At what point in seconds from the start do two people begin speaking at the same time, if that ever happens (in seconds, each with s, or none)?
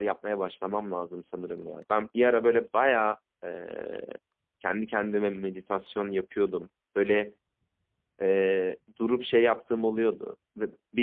none